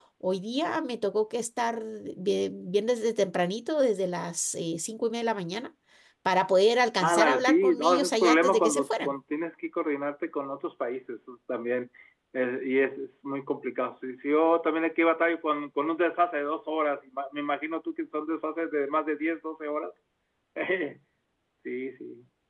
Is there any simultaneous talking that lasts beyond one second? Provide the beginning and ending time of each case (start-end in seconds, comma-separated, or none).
7.0-9.1